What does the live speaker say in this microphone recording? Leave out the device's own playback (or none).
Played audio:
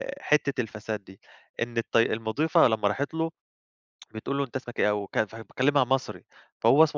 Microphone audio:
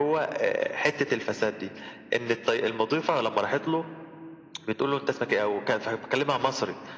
none